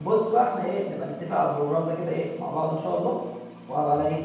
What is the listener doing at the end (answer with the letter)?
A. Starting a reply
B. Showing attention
B